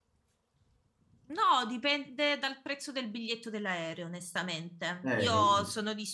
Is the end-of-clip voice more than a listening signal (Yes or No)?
No